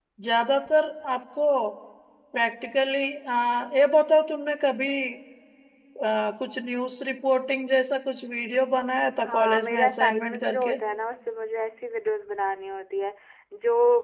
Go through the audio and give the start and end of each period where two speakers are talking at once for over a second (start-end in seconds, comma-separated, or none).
9.2-10.8